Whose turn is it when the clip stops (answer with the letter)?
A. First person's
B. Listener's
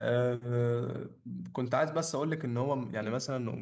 A